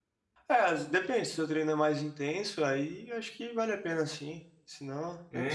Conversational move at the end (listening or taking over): taking over